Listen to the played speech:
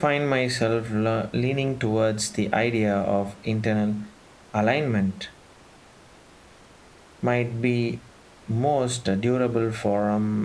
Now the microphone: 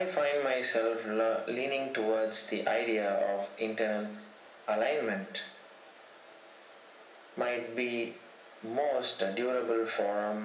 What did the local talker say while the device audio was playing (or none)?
none